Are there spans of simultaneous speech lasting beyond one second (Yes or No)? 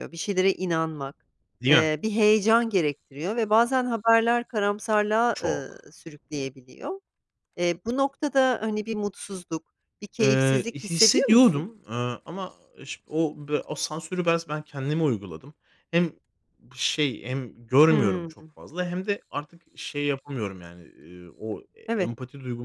Yes